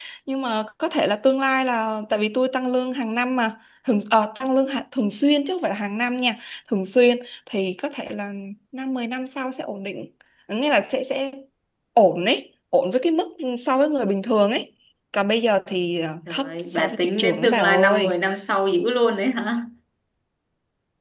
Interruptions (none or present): present